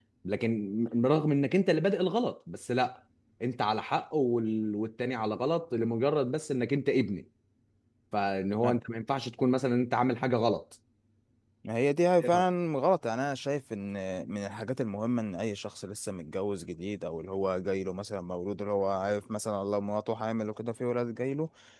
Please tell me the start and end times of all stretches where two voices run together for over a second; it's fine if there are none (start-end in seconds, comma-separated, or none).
none